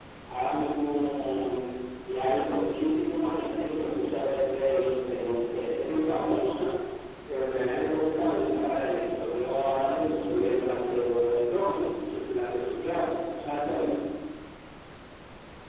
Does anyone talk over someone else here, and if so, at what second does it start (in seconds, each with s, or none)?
none